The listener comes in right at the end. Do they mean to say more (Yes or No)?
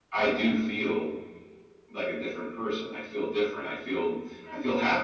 Yes